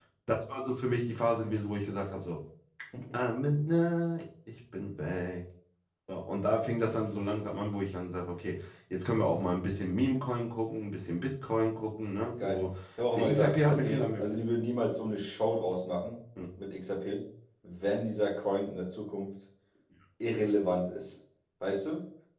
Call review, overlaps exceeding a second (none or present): present